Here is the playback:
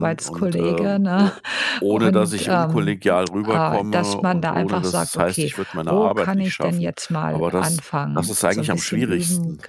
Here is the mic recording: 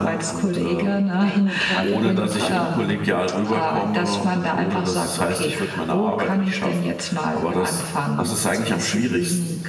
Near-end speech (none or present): present